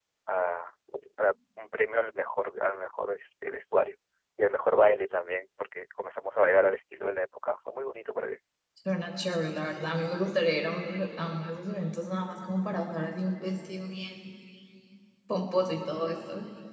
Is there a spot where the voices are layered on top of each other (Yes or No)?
No